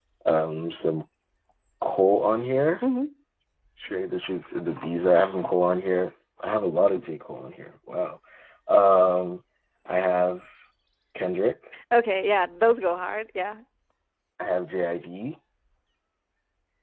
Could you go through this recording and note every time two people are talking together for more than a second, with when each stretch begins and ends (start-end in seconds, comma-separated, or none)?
none